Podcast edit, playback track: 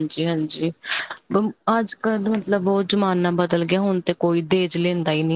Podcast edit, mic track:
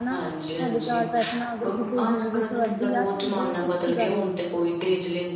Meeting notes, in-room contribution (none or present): present